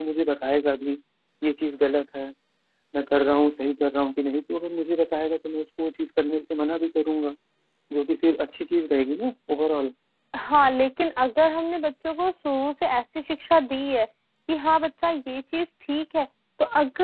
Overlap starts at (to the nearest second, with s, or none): none